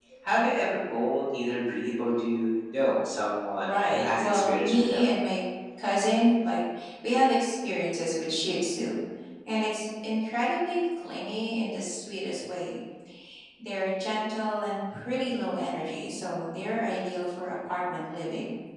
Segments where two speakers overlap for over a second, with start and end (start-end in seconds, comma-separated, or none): 3.6-5.0